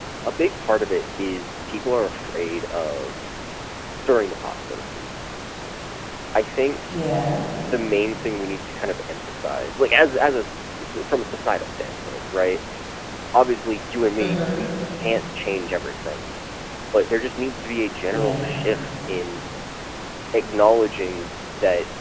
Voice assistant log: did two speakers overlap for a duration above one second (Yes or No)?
No